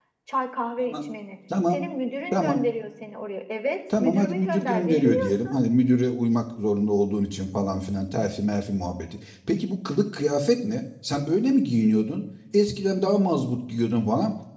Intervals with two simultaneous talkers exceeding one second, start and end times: 4.0-5.6

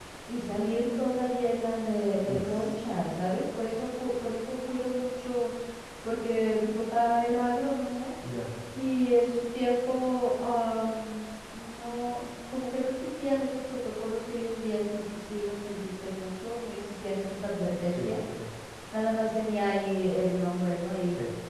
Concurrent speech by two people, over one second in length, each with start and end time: none

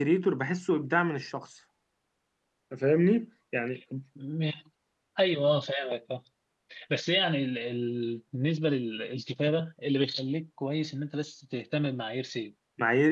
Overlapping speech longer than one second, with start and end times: none

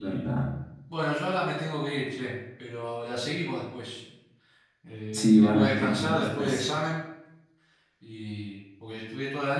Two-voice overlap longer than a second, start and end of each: 5.1-6.6

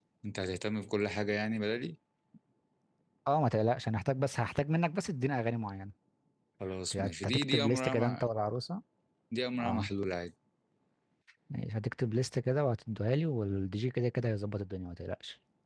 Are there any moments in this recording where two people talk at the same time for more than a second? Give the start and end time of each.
7.0-8.2

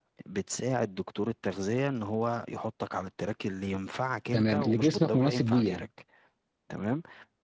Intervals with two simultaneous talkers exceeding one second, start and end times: 4.3-5.9

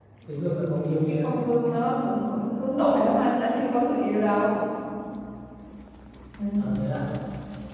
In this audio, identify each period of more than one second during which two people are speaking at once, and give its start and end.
none

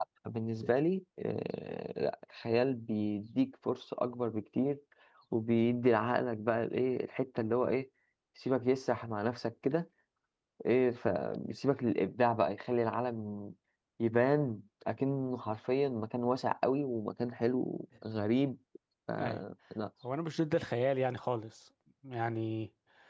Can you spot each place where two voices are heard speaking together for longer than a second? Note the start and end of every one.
none

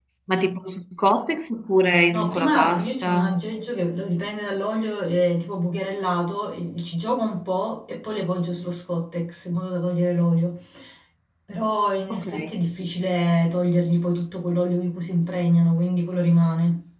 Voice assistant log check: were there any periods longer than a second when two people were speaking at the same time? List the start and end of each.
2.1-3.4

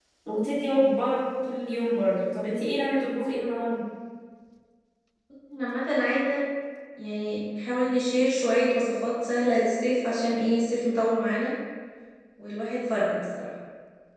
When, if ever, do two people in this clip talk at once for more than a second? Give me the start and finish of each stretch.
none

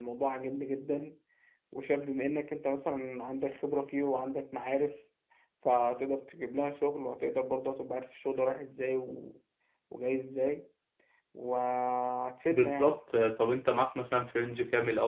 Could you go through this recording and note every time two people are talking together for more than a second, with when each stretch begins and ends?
none

